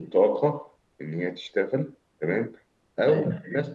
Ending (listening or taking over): listening